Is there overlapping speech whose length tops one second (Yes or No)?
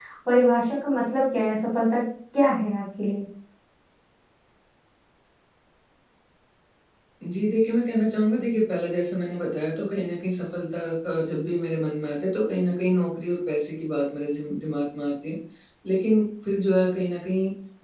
No